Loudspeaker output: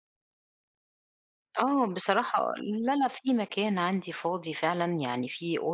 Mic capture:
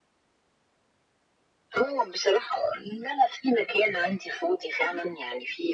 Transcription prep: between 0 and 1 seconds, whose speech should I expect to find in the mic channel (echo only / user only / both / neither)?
neither